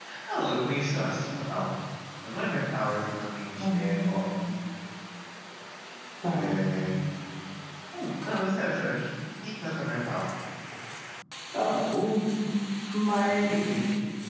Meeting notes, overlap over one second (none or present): none